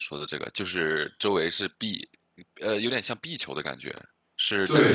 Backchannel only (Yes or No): Yes